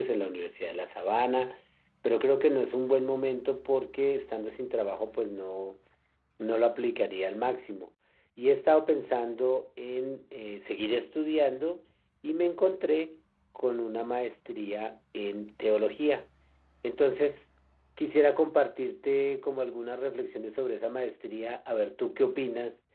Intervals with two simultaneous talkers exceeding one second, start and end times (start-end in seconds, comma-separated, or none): none